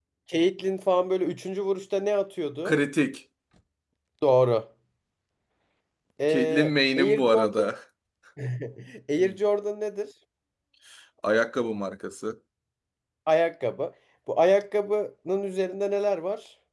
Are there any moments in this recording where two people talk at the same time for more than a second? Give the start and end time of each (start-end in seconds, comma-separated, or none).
6.3-7.7